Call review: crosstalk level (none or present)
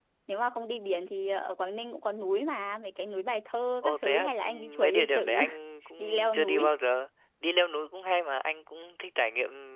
present